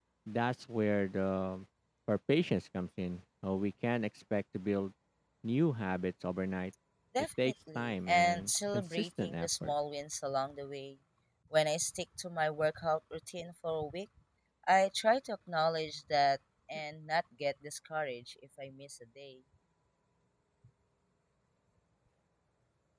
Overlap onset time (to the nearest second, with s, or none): 7 s